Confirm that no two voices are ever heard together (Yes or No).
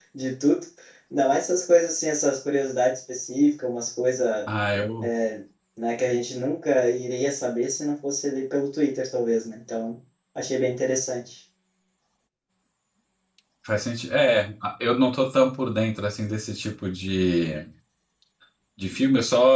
Yes